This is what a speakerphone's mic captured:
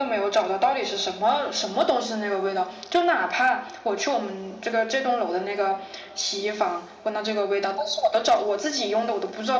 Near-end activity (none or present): none